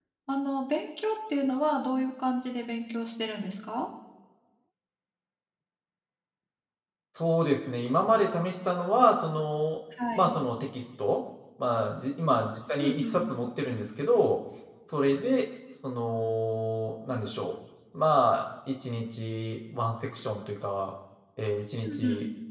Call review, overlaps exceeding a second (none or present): none